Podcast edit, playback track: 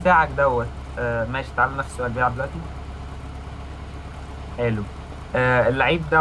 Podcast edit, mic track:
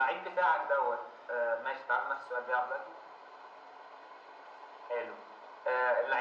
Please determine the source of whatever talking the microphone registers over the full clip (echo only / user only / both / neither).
echo only